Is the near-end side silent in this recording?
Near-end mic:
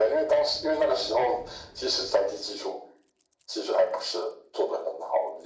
Yes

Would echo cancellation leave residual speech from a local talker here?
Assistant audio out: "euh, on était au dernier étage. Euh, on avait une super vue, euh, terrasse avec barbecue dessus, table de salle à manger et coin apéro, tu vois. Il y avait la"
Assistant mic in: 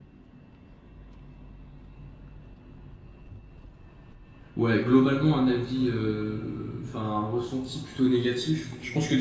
Yes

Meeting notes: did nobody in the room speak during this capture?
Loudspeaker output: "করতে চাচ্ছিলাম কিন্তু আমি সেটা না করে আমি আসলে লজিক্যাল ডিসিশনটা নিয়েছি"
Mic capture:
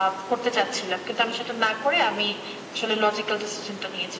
Yes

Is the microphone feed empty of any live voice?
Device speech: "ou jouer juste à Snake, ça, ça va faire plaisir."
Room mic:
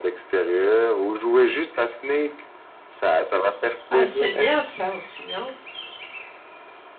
No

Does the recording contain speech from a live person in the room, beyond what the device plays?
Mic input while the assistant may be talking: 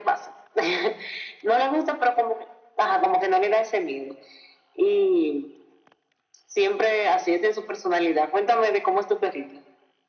No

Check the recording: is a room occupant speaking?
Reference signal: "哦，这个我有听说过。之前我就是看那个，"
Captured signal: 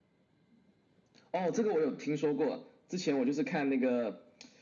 No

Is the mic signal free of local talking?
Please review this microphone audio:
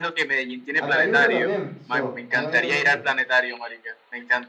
No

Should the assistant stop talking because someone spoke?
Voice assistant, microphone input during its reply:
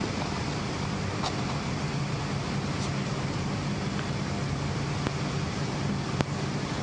No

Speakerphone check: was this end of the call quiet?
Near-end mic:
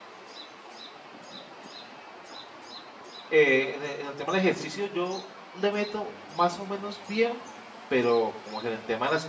No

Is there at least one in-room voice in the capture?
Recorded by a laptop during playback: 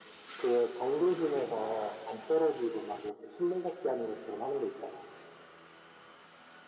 No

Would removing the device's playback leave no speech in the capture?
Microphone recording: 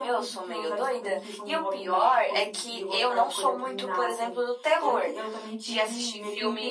Yes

